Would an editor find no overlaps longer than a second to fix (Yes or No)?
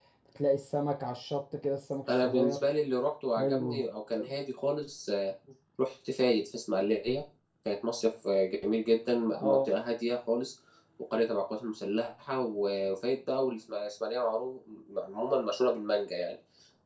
Yes